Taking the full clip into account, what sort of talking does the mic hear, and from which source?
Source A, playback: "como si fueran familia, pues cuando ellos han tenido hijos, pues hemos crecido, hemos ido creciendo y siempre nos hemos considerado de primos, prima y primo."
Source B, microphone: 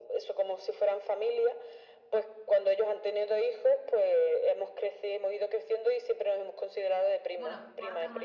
both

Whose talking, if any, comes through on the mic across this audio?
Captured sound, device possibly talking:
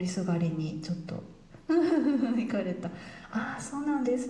echo only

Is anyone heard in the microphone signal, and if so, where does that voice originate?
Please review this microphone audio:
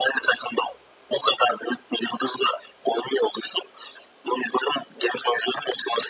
echo only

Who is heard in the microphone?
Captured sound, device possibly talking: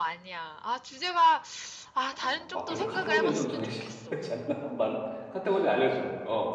both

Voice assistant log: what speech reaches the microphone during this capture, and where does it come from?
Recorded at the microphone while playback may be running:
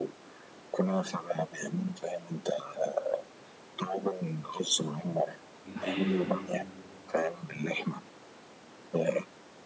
both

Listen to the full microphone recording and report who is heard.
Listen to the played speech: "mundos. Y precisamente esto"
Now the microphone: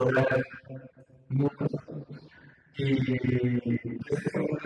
echo only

